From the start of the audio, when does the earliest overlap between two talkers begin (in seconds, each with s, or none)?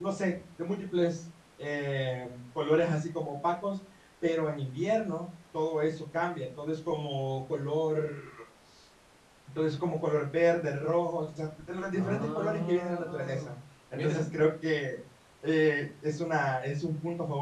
11.9 s